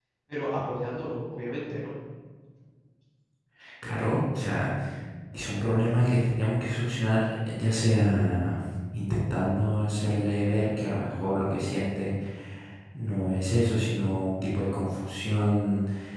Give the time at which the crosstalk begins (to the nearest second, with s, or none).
none